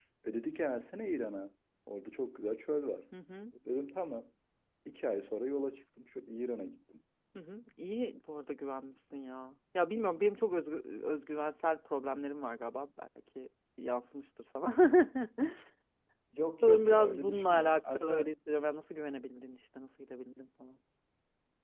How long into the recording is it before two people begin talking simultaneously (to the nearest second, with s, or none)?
17 s